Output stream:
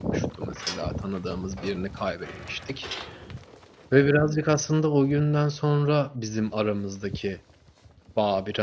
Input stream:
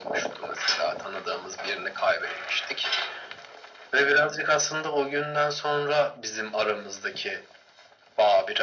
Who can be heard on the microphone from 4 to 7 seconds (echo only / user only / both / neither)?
echo only